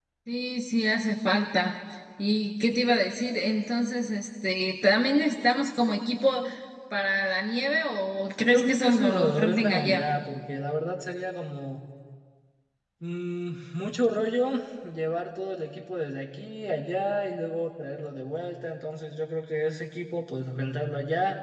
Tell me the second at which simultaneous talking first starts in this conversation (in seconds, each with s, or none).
8.5 s